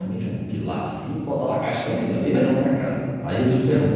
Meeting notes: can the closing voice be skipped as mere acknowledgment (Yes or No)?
Yes